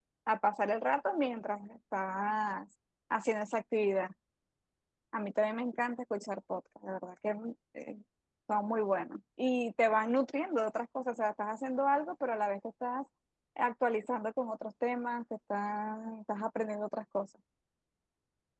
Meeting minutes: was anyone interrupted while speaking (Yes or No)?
No